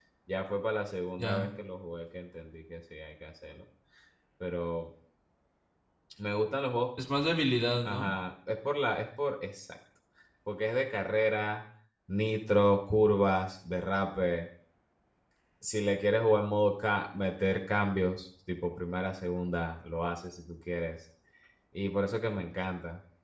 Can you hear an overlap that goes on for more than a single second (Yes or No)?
No